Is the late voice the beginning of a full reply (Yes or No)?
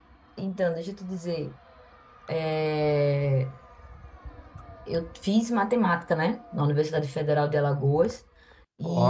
No